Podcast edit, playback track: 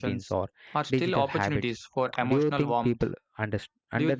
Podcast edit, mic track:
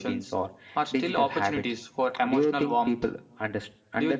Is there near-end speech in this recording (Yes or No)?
No